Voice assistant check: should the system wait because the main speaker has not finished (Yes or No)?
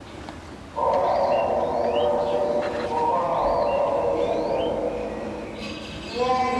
No